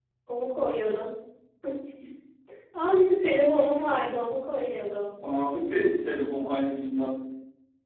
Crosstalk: none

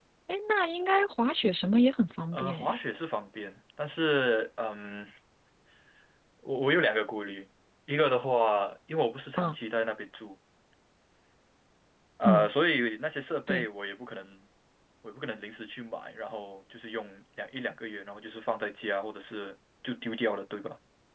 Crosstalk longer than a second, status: none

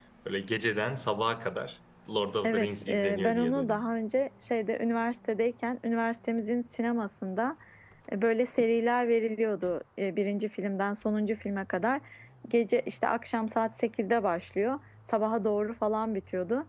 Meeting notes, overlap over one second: present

